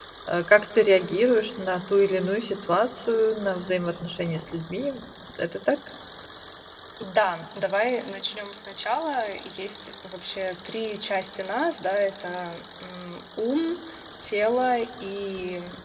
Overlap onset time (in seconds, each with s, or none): none